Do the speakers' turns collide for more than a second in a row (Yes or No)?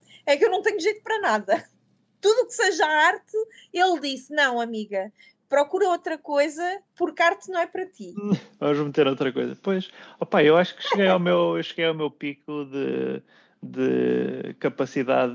No